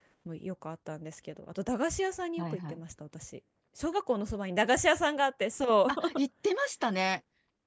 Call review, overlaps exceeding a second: none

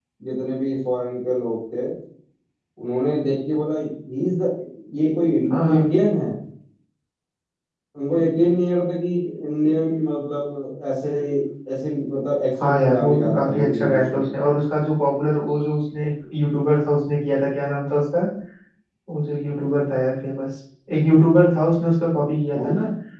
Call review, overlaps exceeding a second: present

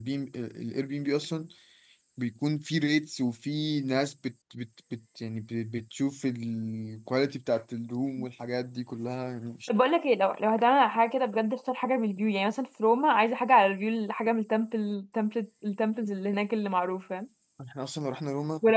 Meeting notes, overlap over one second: none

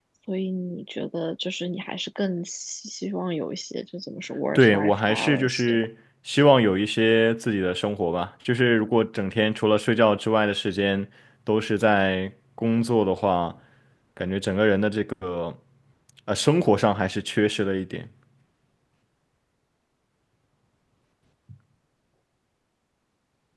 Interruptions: present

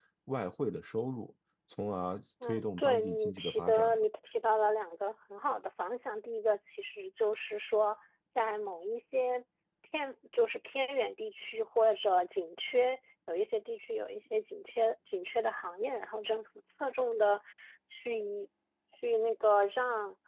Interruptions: present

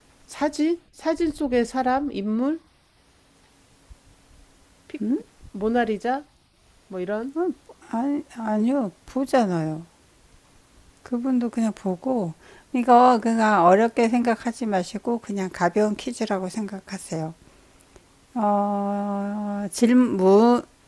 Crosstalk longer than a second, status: none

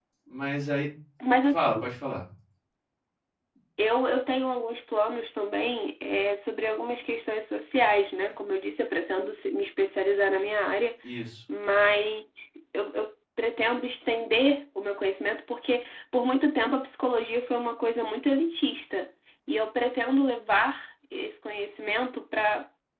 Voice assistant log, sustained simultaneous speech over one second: none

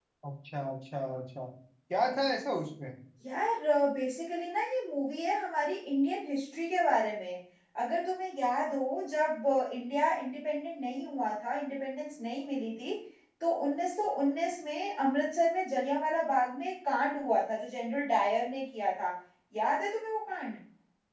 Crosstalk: none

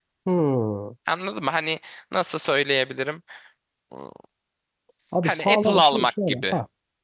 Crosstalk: present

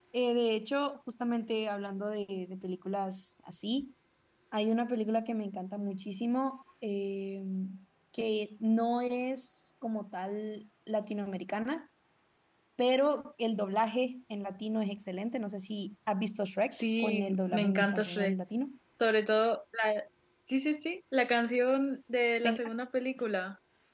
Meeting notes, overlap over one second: present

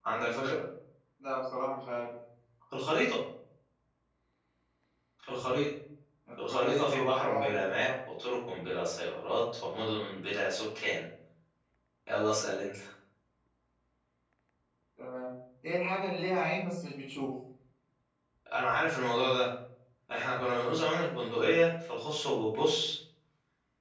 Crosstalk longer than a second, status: present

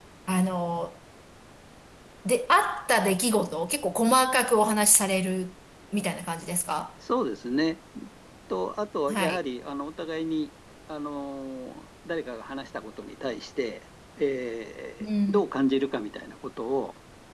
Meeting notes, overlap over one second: none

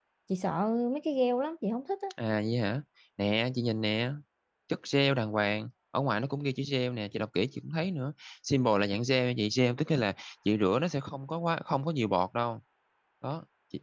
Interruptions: none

